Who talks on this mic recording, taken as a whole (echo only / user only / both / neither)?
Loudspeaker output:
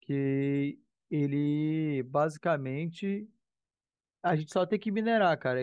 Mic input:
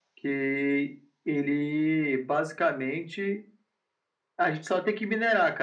echo only